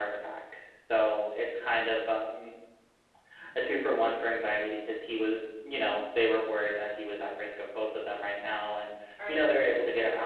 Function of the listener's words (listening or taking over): listening